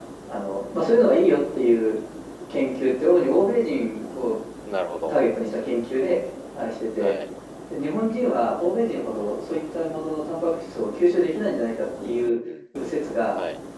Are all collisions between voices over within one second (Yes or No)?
Yes